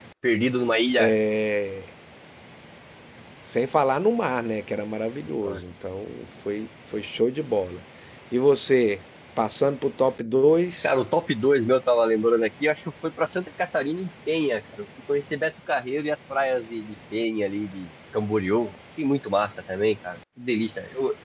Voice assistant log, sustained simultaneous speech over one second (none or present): none